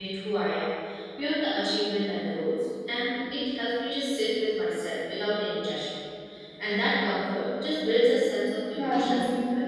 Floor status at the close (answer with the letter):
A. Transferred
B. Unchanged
A